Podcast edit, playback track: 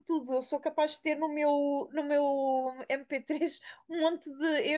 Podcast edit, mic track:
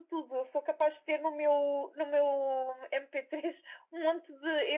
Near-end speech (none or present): none